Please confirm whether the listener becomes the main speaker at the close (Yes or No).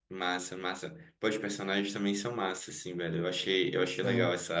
No